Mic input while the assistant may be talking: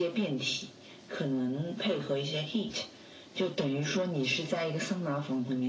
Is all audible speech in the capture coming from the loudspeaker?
Yes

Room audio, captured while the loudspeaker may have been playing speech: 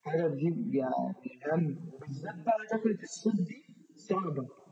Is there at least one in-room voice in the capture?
No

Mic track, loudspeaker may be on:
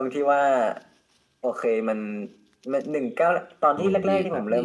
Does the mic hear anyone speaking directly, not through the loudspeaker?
Yes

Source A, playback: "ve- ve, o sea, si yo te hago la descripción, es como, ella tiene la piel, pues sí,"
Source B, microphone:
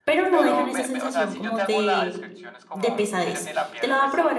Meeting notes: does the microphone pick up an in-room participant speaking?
Yes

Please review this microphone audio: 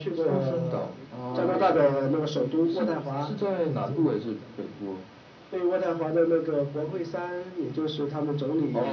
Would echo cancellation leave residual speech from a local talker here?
Yes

